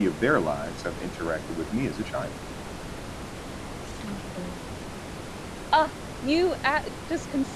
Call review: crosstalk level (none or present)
none